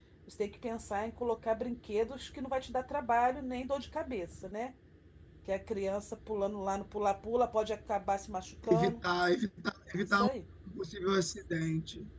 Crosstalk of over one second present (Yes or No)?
No